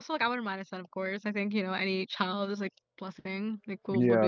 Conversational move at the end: taking over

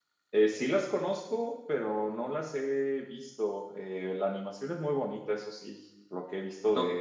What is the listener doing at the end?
listening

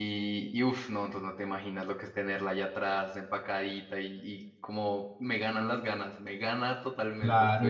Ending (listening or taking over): taking over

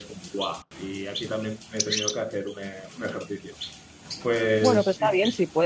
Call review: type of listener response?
taking over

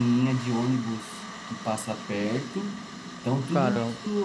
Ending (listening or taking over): listening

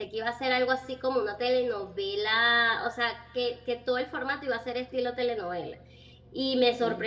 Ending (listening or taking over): listening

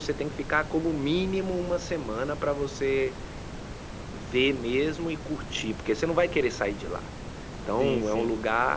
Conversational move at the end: listening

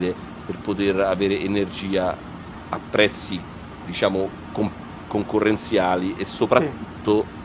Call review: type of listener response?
listening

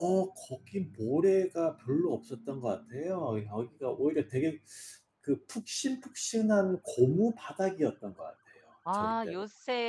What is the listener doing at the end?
taking over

